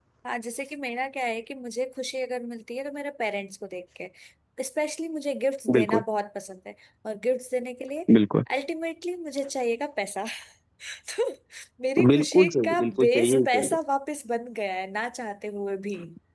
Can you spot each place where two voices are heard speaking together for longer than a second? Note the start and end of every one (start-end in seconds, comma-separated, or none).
12.1-13.8